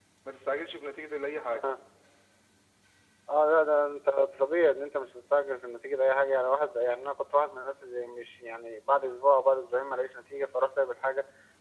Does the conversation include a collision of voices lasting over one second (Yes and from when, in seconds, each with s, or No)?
No